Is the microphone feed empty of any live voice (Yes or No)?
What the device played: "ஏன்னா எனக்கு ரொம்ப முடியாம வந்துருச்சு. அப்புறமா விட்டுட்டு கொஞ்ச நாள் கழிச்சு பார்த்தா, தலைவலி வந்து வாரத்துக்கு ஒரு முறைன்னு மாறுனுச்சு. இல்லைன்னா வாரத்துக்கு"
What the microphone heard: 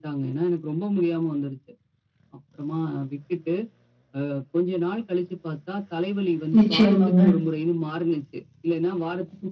No